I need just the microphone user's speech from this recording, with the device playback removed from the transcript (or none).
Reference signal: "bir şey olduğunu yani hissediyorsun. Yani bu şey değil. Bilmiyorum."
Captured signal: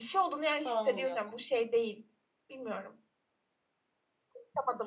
falan oluyor.